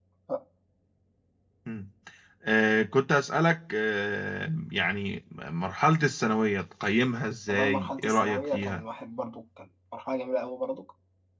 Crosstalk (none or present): present